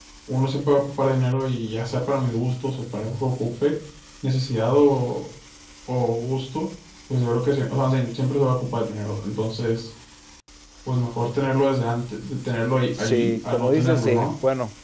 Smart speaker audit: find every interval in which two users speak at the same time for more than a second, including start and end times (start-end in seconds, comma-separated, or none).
12.9-14.3